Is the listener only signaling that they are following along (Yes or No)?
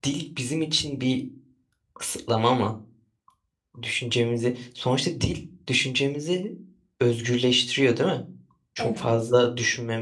Yes